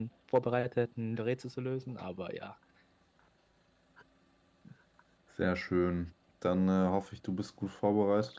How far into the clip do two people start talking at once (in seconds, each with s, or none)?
none